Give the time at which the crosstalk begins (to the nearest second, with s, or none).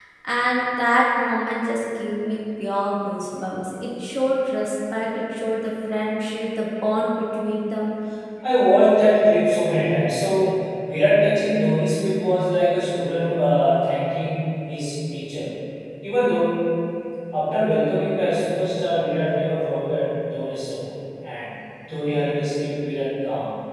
none